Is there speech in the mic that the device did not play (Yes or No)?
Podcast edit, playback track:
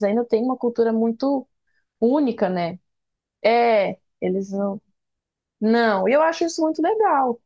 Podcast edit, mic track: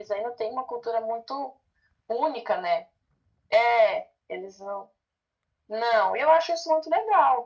No